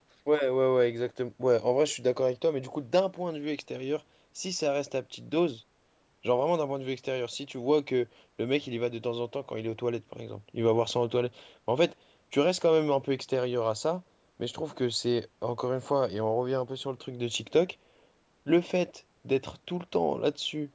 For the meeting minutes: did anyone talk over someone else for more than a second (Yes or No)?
No